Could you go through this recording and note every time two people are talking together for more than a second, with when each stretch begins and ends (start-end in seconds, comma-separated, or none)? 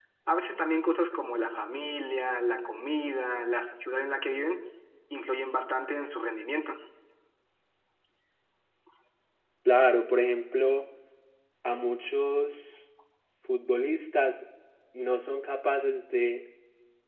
none